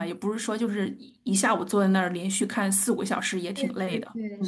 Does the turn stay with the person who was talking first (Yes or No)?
No